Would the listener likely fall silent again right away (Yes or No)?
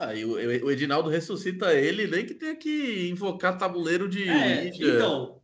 No